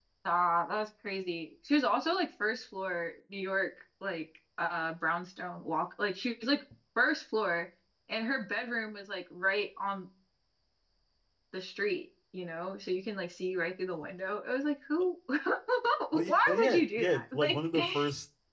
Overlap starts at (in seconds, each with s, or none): 16.1 s